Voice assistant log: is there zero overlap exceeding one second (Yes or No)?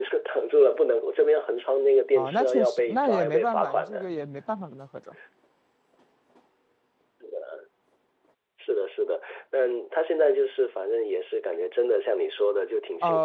No